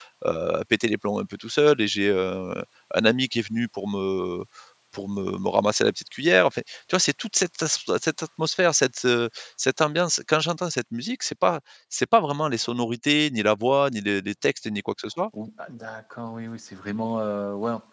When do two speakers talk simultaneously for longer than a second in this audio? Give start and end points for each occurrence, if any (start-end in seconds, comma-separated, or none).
none